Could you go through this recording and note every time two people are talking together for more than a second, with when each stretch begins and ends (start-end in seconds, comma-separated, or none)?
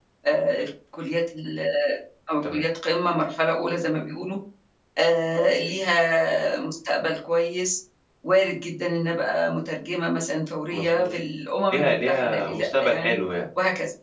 11.7-13.2